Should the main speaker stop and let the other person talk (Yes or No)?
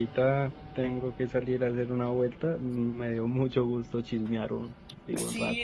Yes